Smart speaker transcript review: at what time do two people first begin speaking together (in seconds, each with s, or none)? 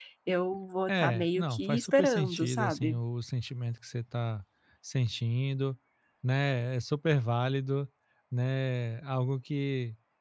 0.9 s